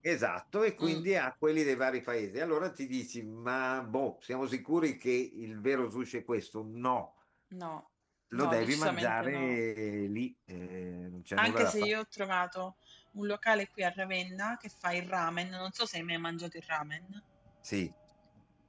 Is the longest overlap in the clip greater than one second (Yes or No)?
Yes